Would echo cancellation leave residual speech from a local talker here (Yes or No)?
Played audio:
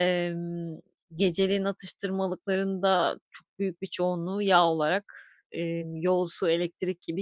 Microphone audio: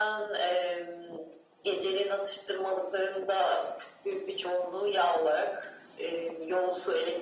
No